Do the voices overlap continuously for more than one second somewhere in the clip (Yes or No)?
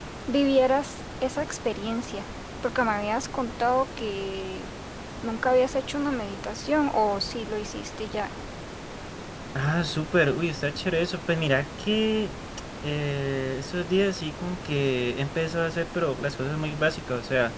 No